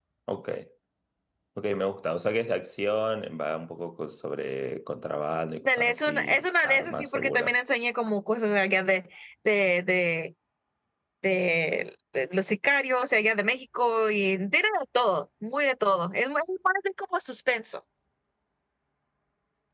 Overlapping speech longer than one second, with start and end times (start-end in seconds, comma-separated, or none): 5.7-7.6